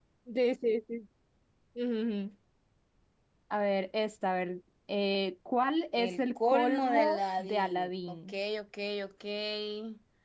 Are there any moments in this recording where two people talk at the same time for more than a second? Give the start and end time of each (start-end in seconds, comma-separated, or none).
6.0-8.3